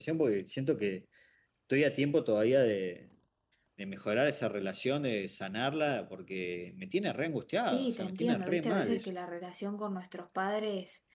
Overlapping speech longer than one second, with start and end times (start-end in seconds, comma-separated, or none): 7.6-9.1